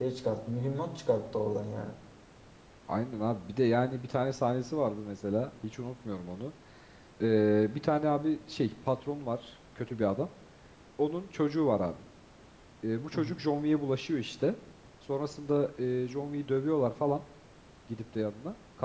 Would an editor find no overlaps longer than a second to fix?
Yes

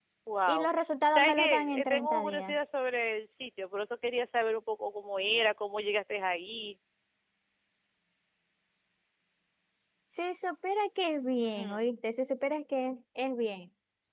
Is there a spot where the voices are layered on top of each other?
Yes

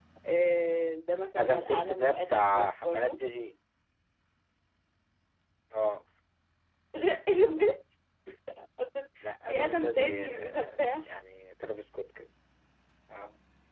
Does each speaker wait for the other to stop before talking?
No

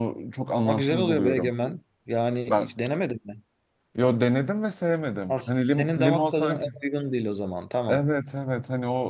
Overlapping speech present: Yes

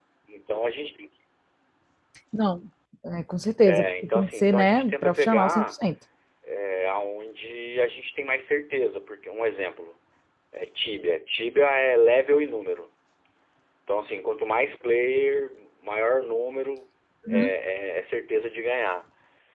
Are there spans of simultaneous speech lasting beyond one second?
Yes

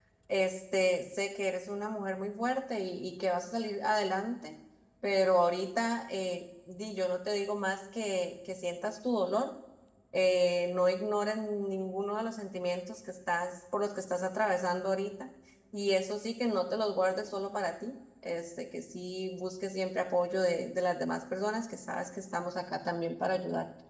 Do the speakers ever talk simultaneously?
No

